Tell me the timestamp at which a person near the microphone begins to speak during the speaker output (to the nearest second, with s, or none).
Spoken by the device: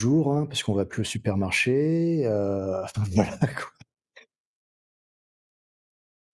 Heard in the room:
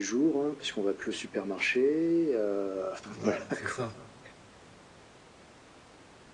3 s